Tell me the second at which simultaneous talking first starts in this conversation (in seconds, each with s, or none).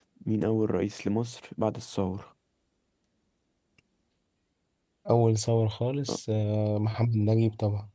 none